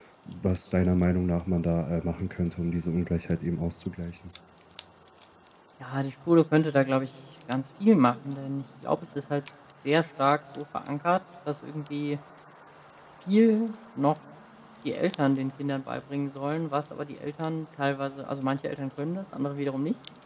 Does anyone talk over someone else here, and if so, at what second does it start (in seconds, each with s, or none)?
none